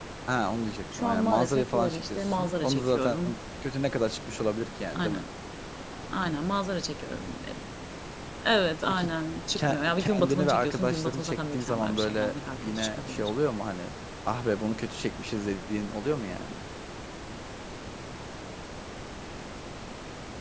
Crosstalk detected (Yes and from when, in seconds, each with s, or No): Yes, from 1.0 s